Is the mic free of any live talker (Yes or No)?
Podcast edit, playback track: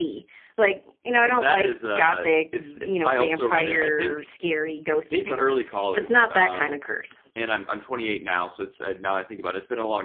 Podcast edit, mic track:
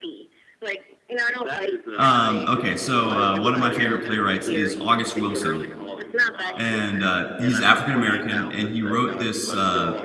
No